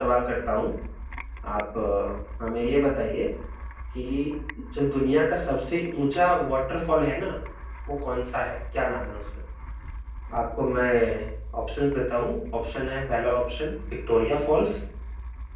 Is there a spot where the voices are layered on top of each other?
No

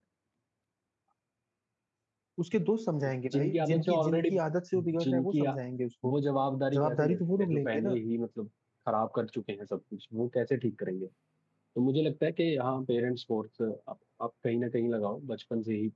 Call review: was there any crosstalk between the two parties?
Yes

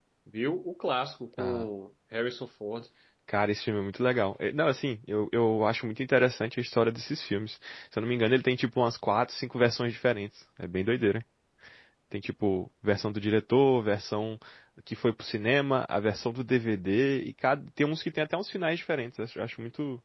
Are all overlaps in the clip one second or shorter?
Yes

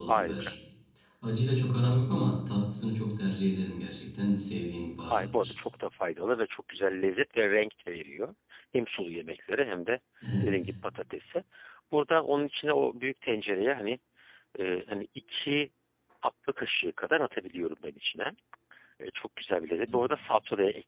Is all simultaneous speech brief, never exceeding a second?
Yes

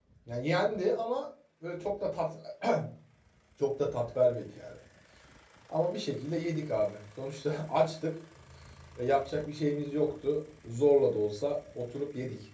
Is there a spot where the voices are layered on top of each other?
No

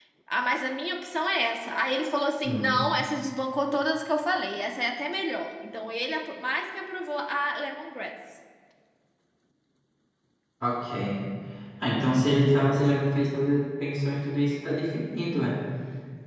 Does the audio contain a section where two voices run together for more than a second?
No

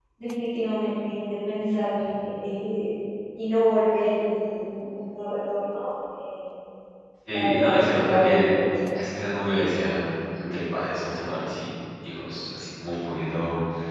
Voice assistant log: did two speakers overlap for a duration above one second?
Yes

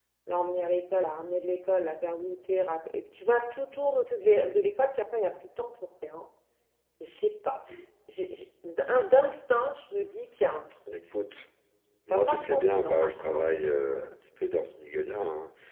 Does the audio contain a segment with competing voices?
Yes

